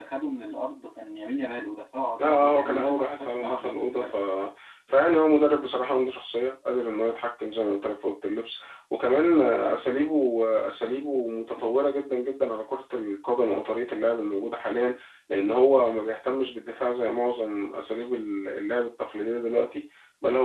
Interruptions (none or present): present